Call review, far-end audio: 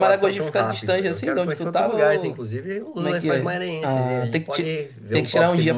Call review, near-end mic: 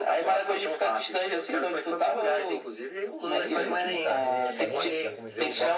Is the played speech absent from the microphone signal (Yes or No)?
No